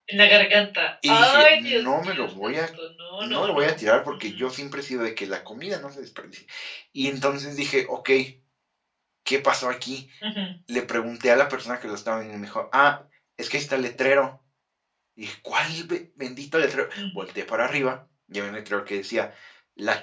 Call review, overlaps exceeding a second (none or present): present